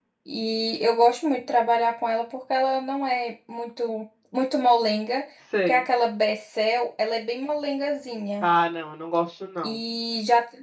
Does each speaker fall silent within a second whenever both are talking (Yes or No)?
Yes